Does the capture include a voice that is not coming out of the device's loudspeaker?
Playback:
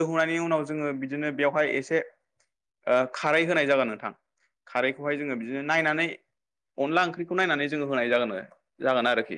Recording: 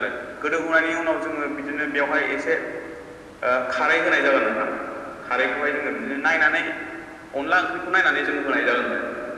No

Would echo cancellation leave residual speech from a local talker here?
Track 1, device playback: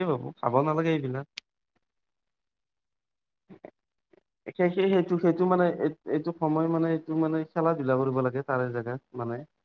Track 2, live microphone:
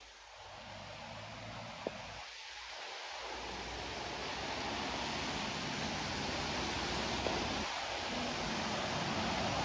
No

